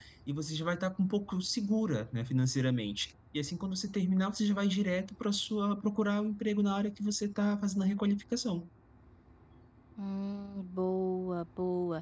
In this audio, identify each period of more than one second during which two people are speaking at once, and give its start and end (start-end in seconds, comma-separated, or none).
none